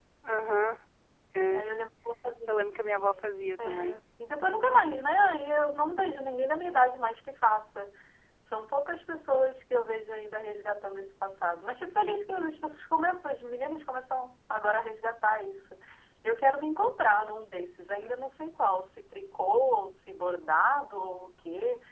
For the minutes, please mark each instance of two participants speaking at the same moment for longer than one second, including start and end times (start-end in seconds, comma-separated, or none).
2.5-4.0